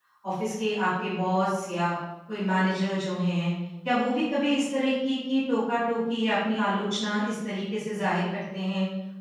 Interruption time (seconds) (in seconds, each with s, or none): none